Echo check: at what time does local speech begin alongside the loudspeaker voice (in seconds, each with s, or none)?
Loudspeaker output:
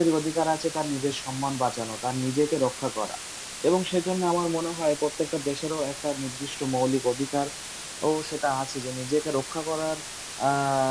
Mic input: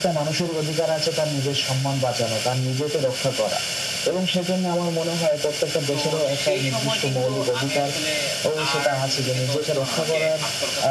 5.9 s